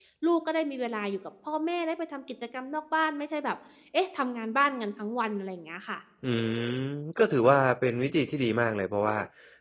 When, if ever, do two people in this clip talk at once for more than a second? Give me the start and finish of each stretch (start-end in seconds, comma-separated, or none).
none